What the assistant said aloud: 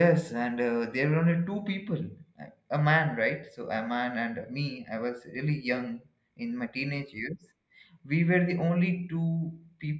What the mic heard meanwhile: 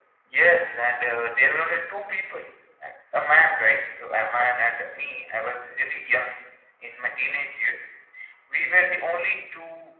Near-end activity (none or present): none